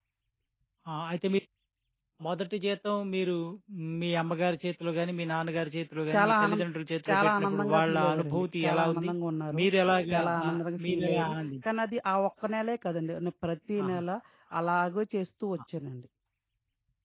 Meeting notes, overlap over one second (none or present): present